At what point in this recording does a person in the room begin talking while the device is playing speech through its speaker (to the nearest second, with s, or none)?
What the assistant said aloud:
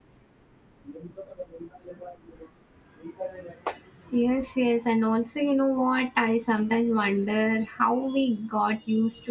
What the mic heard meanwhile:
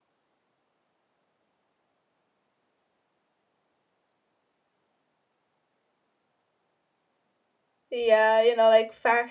8 s